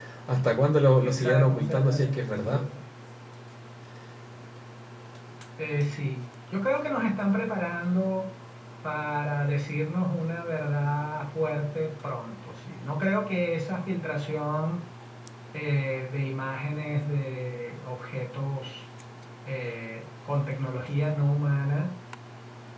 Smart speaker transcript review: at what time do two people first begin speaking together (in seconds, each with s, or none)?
1.0 s